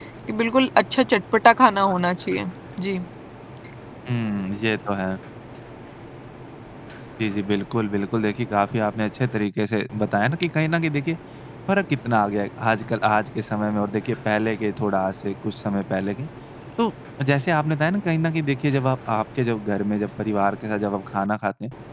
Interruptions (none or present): none